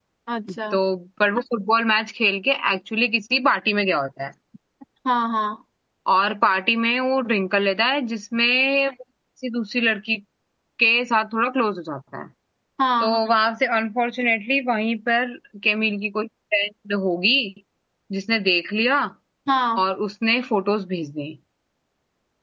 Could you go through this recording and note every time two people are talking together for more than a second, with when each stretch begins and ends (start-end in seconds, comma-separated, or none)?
none